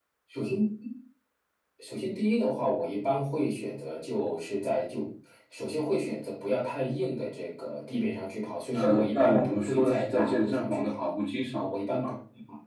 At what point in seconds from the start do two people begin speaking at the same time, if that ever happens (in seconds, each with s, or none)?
8.7 s